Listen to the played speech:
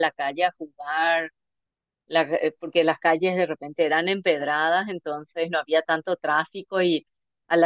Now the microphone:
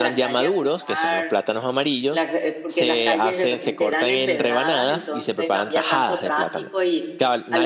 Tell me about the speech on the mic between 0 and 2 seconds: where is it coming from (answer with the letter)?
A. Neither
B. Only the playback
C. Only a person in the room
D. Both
D